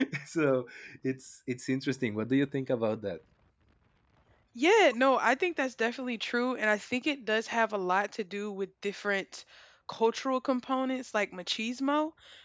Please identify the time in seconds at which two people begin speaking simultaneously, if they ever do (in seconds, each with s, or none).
none